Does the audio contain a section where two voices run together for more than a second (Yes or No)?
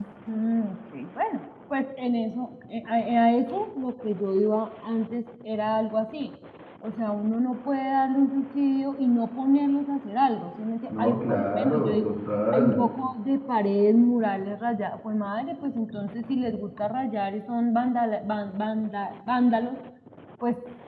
Yes